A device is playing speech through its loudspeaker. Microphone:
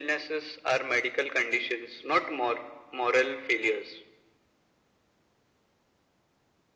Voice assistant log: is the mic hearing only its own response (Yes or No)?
Yes